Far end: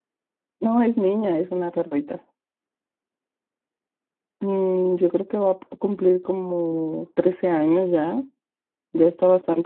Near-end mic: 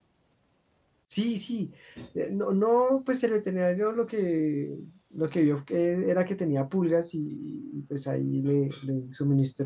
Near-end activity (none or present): present